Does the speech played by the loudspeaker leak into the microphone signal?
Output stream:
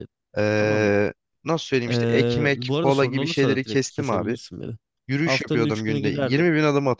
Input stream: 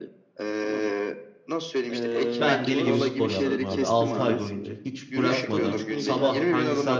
Yes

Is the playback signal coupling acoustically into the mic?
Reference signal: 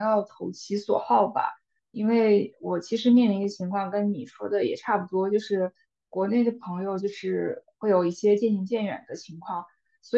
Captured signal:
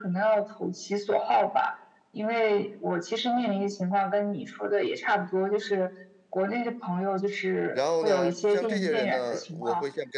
Yes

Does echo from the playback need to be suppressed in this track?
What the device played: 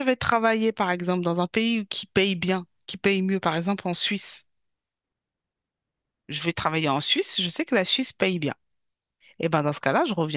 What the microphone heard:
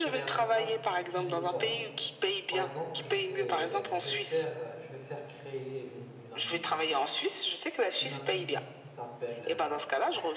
Yes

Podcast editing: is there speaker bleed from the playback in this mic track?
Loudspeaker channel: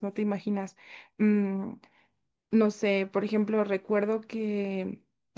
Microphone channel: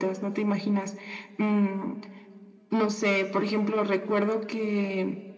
Yes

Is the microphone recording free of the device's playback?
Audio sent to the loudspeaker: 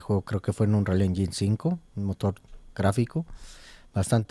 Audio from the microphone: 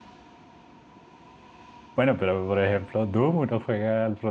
Yes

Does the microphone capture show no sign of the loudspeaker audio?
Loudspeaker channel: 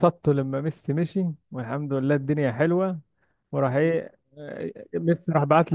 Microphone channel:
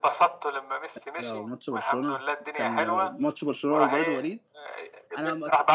No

